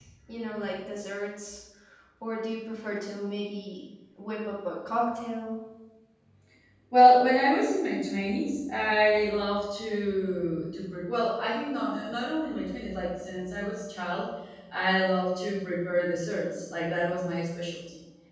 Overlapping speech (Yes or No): No